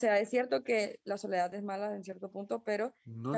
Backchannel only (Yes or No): Yes